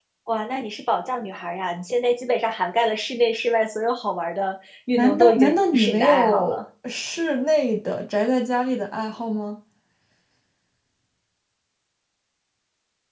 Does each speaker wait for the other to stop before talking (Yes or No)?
No